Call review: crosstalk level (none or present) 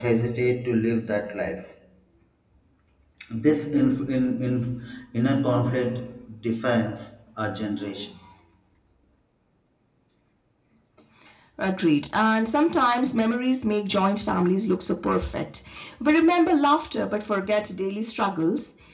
none